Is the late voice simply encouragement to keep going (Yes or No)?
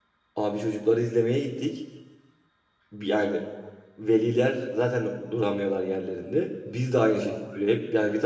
Yes